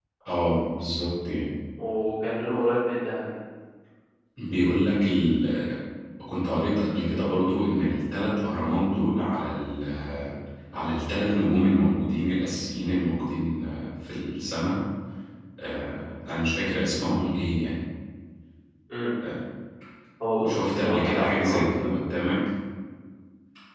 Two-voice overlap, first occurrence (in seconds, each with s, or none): 20.5 s